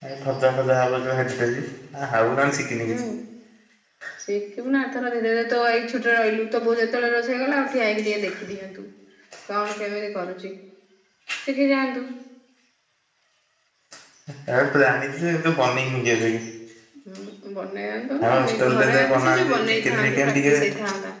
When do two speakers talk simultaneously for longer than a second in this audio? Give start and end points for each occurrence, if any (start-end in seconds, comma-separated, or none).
18.2-20.5